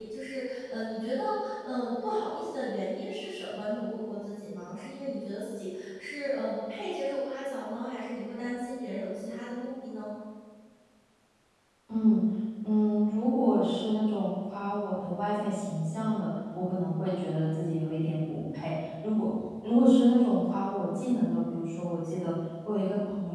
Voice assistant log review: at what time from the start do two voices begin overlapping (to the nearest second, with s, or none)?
none